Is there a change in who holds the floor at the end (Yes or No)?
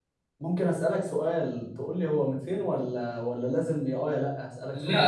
Yes